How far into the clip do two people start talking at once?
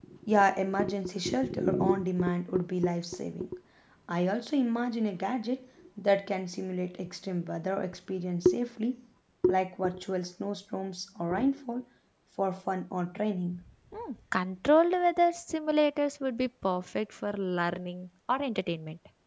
none

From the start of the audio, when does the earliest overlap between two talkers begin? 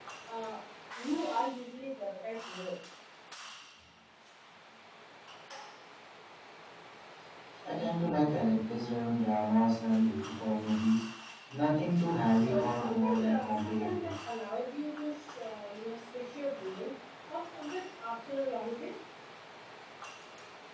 12.3 s

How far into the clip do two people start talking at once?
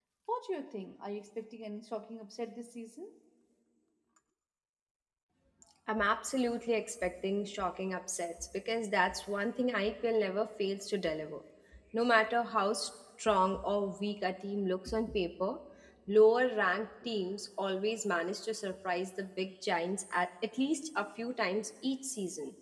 none

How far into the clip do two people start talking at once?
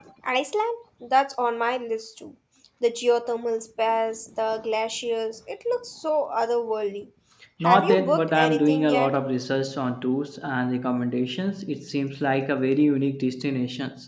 7.6 s

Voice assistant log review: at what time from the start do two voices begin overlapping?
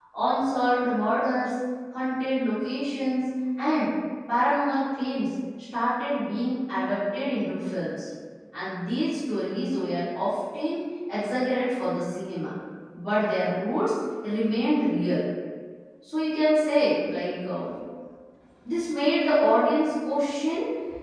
none

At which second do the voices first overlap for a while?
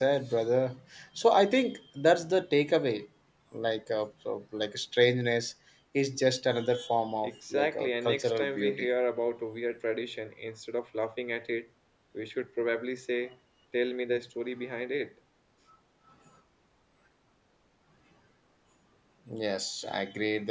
7.2 s

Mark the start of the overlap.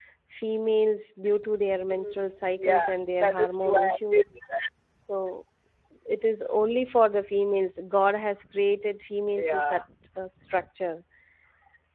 1.8 s

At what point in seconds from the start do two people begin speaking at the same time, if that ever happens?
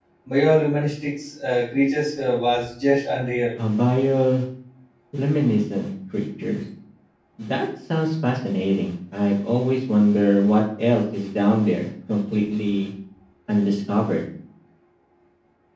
none

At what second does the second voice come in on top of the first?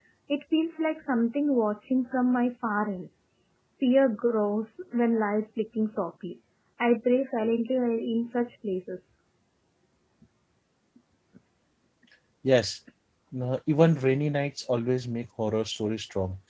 none

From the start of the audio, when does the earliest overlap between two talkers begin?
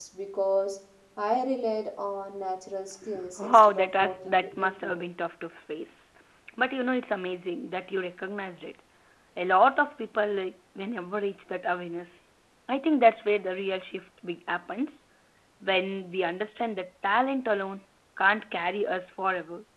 3.4 s

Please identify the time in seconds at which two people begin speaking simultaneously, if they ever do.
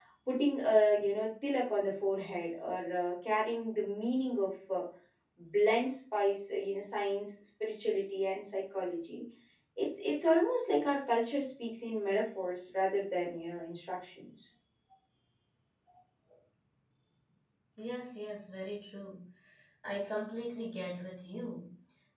none

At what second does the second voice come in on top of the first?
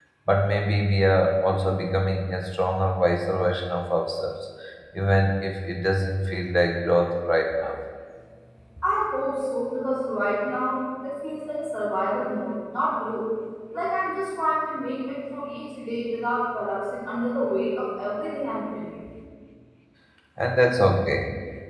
none

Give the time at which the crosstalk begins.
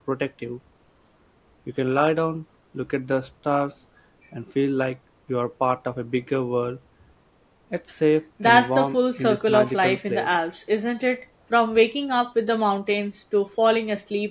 8.4 s

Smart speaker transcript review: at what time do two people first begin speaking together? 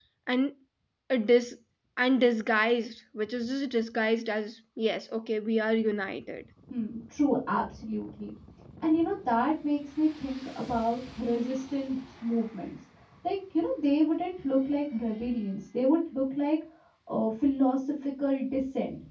none

